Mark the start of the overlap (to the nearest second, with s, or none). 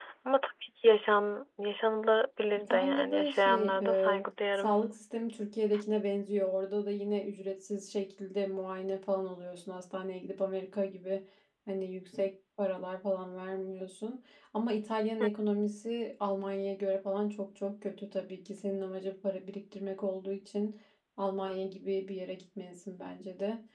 3 s